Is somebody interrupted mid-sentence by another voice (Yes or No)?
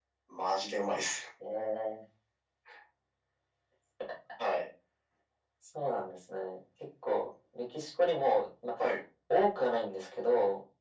No